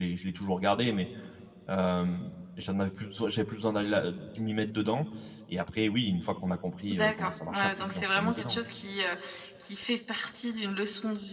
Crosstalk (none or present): present